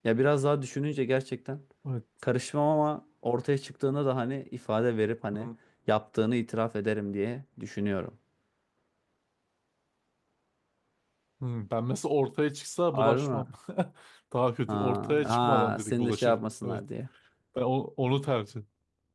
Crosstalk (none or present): present